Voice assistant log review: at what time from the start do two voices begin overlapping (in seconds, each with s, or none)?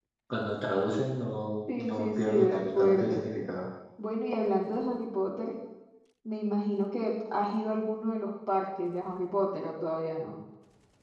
1.7 s